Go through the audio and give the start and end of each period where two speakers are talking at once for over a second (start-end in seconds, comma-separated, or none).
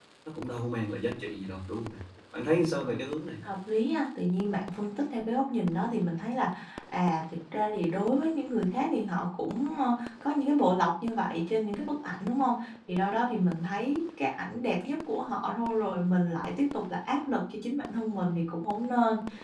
none